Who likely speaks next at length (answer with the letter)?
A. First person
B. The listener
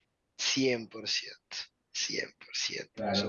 B